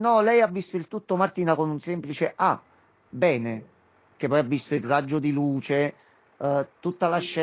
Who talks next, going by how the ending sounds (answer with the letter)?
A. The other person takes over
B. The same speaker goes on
B